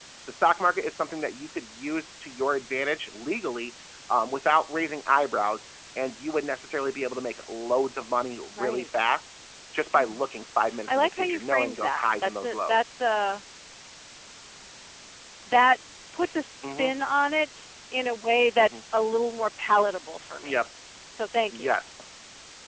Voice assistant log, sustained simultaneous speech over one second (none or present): present